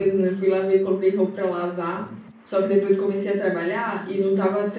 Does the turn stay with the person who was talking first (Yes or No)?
Yes